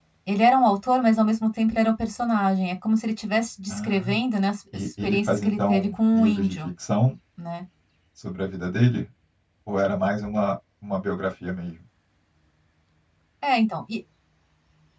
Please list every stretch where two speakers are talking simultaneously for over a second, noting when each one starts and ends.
4.7-6.6

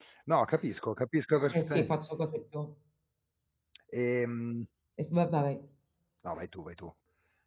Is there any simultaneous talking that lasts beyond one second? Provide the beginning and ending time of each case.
none

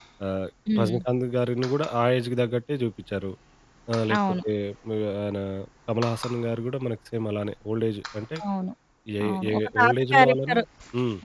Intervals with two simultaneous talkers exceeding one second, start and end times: 9.3-10.6

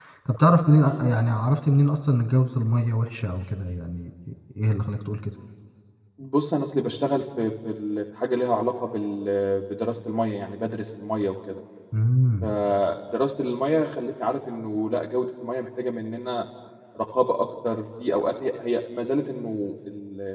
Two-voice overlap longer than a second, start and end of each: none

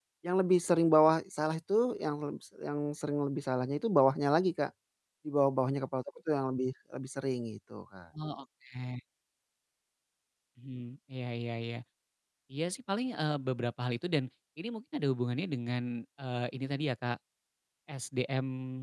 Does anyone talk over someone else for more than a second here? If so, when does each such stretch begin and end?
none

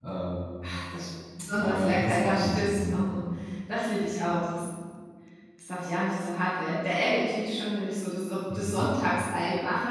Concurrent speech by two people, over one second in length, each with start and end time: 1.6-3.2

